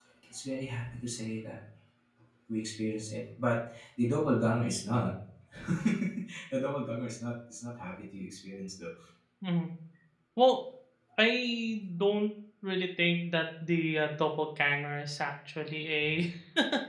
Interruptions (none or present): none